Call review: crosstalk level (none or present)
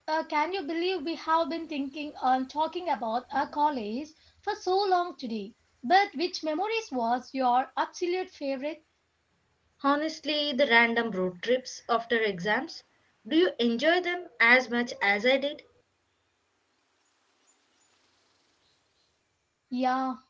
none